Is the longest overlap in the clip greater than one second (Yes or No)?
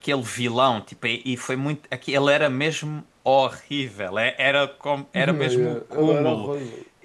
Yes